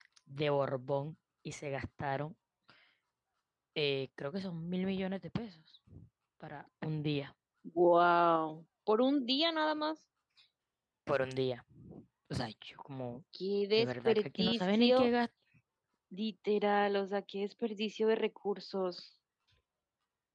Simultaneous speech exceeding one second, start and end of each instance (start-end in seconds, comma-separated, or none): 13.7-15.1